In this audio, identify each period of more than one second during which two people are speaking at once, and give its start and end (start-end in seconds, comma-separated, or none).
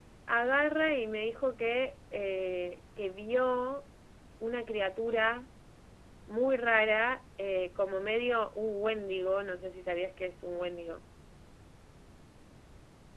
none